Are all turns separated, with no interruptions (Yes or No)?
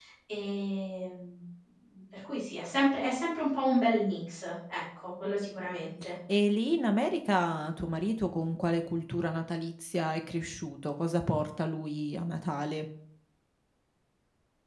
Yes